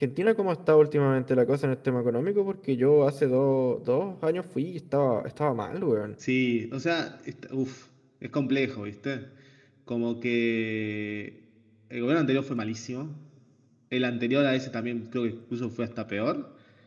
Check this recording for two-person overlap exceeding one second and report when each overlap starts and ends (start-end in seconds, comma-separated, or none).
none